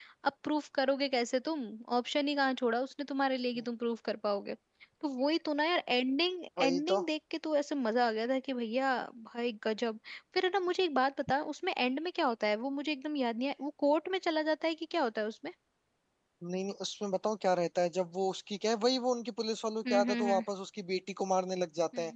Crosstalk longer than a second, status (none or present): none